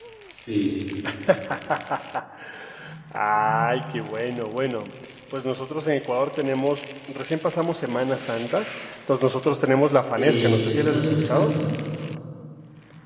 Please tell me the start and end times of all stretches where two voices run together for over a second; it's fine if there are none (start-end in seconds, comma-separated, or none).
10.2-11.5